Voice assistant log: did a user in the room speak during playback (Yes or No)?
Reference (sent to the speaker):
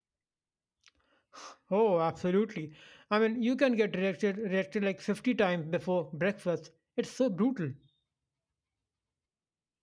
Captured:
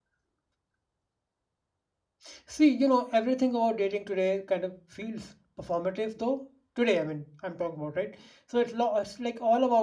Yes